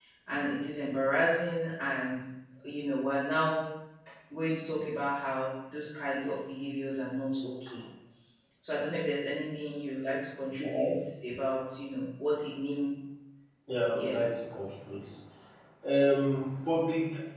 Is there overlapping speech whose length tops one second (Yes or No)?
No